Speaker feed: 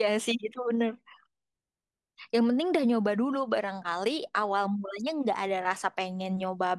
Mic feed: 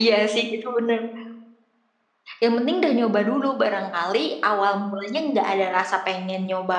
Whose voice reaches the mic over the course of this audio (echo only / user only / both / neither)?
echo only